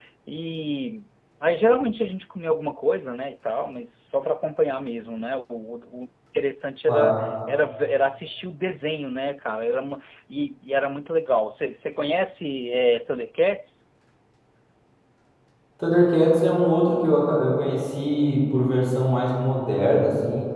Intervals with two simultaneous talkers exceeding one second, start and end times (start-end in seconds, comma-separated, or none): none